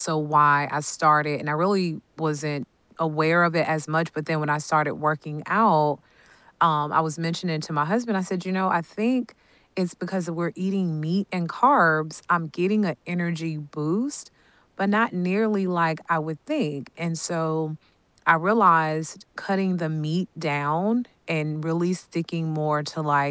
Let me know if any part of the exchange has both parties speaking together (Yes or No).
No